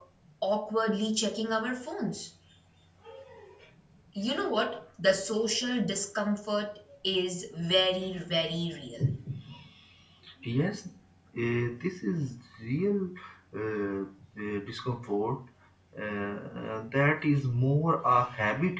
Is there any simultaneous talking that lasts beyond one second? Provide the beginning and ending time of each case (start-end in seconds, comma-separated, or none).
none